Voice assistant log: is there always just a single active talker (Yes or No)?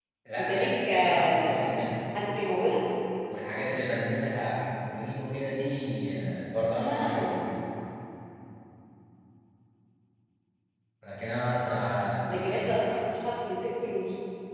No